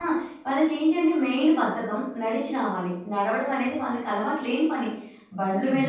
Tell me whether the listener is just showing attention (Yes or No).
Yes